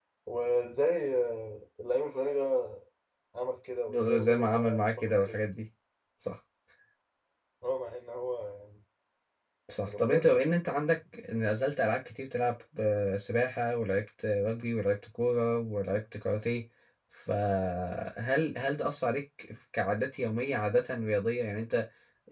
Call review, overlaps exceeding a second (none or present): present